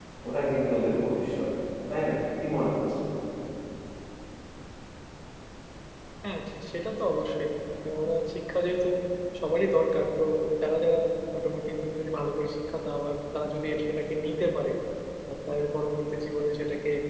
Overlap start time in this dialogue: none

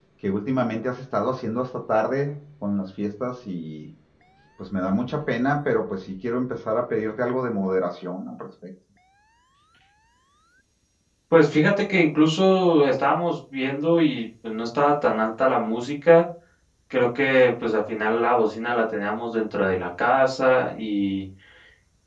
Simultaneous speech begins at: none

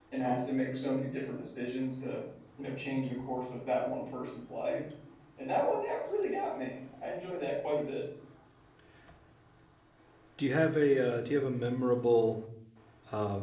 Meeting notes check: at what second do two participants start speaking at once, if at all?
none

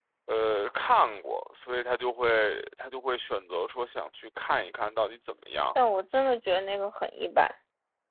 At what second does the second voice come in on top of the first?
none

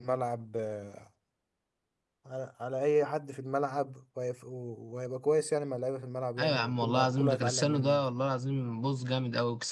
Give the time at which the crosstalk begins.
6.4 s

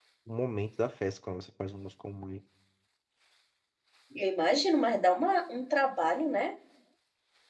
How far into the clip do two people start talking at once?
none

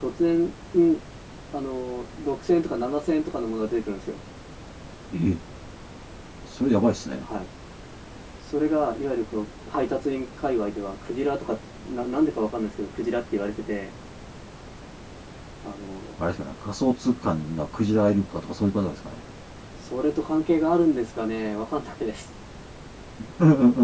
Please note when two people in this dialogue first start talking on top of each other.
none

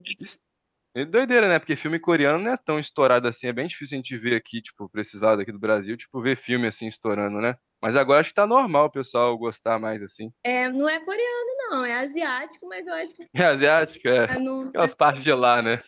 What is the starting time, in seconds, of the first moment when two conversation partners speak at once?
none

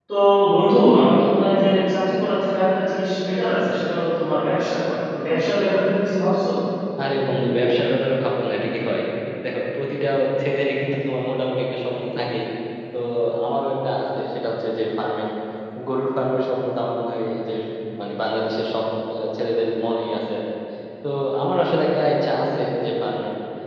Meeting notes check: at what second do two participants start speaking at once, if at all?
none

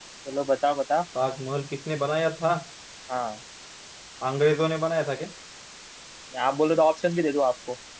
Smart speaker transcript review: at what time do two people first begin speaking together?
none

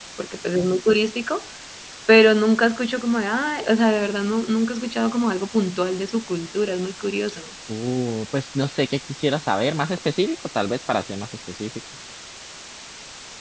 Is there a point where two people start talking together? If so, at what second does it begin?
none

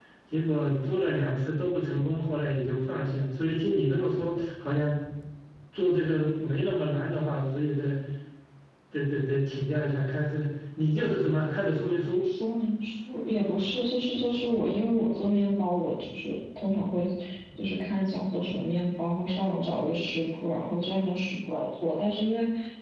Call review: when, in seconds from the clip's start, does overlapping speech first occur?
none

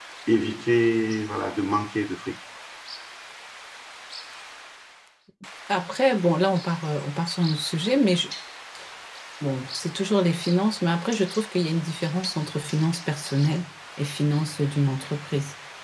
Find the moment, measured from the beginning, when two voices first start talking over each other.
none

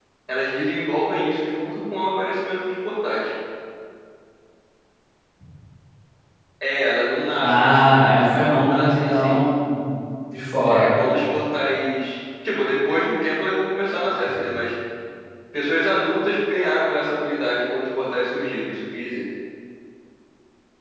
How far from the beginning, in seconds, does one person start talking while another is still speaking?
7.4 s

